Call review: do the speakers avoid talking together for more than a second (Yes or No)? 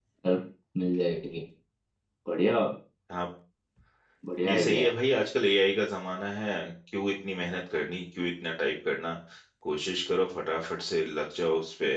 Yes